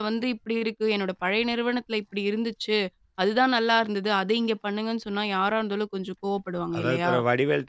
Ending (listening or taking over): taking over